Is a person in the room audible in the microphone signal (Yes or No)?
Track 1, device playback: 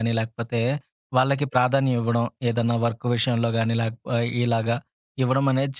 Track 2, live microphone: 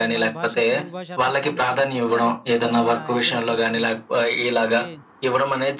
Yes